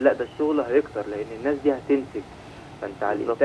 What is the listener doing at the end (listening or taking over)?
listening